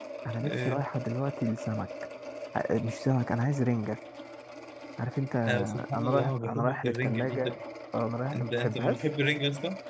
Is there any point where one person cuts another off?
Yes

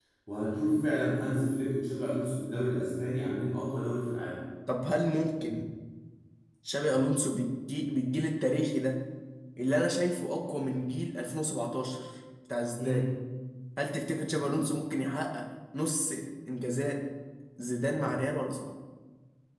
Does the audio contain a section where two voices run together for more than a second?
No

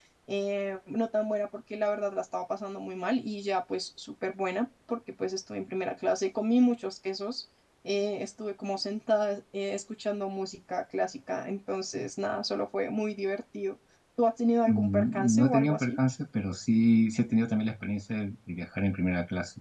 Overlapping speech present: Yes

